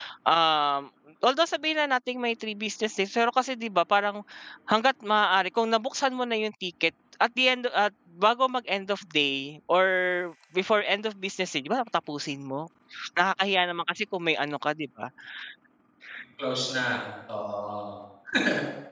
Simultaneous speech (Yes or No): No